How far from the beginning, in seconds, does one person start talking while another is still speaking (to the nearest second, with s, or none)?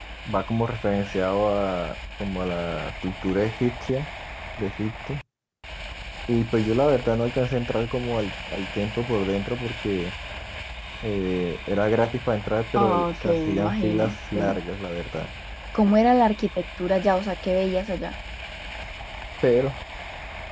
13 s